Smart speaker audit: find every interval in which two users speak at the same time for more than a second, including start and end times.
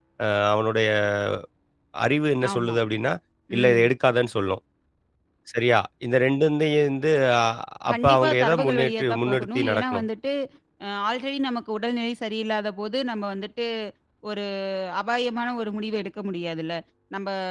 7.9-10.1

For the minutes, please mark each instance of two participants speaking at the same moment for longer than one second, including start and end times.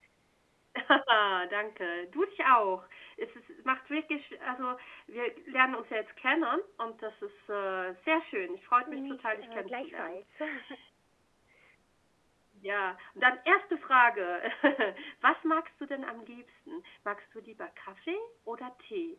8.9-10.2

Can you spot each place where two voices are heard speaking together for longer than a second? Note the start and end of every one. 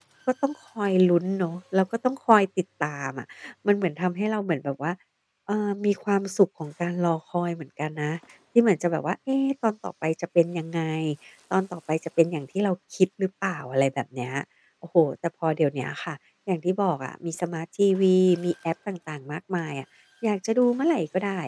none

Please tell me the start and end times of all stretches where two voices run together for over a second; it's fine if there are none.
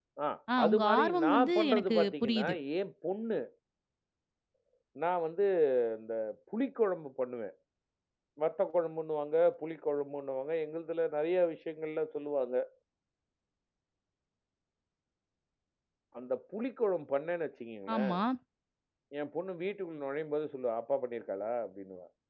0.6-2.5

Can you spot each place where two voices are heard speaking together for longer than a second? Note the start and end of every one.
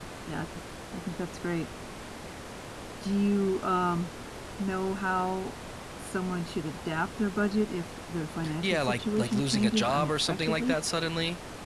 8.6-10.8

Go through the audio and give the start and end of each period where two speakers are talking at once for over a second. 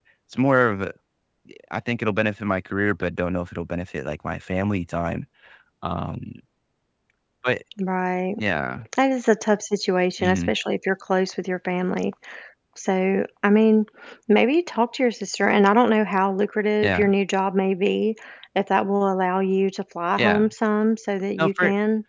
none

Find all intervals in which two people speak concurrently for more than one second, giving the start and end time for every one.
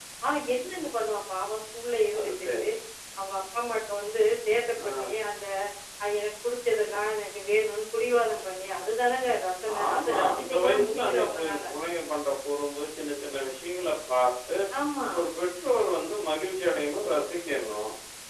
9.9-11.6

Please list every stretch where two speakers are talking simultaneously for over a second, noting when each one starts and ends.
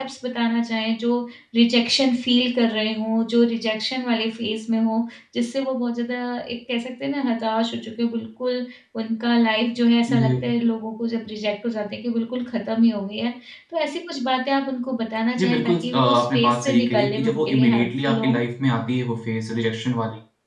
15.4-18.4

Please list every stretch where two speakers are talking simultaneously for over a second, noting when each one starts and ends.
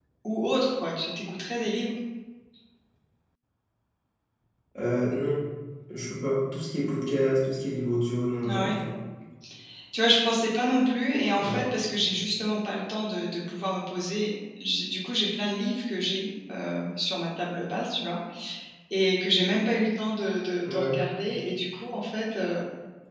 none

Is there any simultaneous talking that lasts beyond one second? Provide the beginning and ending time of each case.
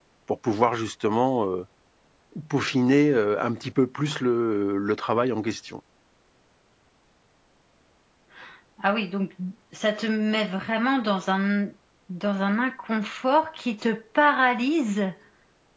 none

